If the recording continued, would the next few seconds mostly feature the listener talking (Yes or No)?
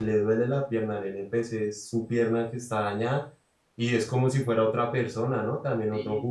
Yes